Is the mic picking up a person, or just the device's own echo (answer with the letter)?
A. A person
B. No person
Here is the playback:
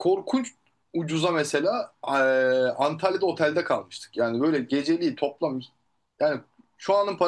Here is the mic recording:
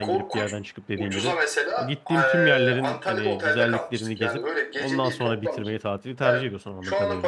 A